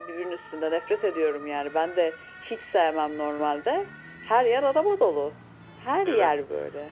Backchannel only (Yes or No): No